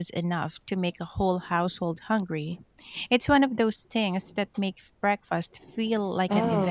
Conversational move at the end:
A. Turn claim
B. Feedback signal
A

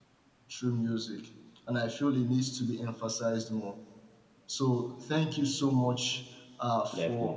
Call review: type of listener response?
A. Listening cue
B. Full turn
A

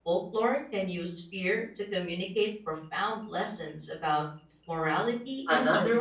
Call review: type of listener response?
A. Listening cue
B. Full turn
B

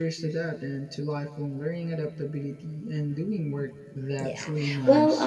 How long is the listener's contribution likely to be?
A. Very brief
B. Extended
B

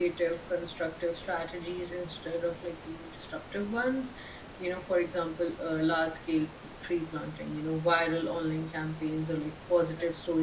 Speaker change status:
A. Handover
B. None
B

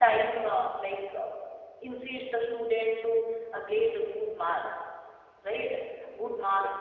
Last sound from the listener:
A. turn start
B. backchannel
B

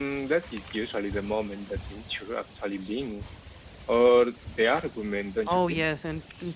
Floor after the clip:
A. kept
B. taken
B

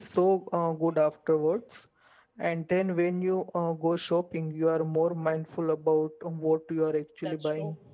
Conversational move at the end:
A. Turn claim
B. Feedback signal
A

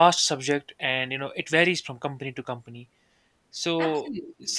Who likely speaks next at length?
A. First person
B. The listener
A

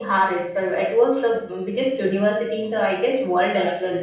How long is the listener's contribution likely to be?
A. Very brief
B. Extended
B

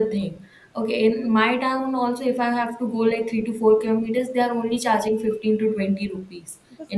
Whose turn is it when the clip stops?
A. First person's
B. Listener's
A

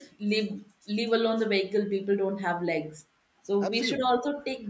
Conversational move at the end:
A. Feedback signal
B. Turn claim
A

